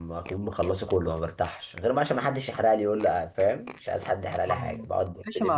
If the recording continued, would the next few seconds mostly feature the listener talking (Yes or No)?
Yes